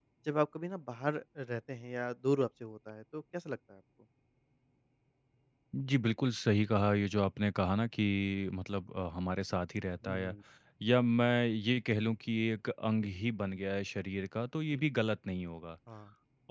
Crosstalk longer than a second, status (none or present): none